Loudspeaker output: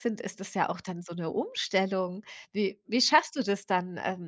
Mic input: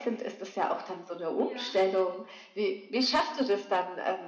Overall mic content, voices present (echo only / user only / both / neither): both